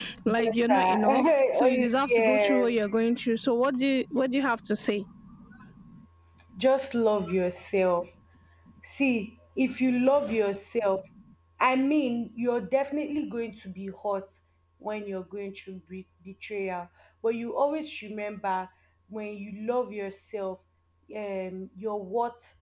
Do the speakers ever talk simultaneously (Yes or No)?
Yes